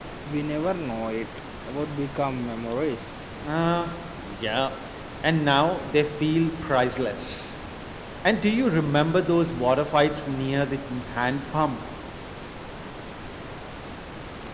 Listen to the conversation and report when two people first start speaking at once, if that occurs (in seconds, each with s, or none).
none